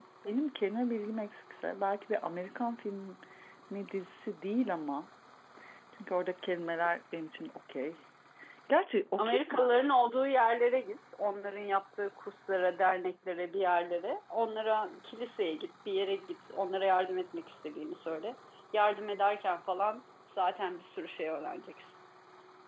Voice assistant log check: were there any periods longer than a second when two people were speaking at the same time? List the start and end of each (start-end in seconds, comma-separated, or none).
none